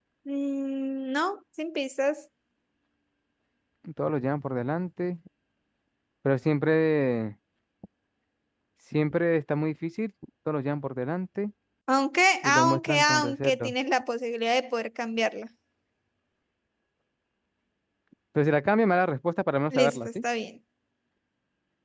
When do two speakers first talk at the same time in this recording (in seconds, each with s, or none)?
12.4 s